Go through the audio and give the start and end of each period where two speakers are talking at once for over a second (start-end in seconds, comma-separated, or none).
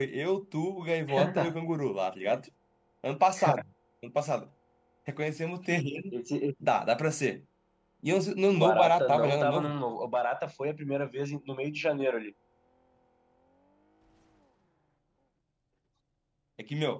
8.5-9.7